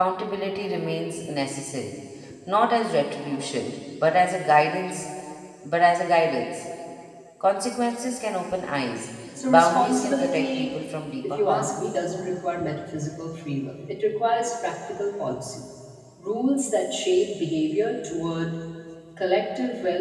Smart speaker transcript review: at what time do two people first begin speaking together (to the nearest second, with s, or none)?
9 s